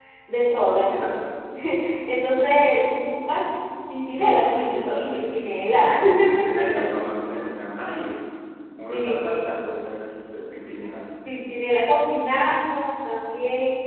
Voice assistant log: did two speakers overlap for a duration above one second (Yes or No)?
Yes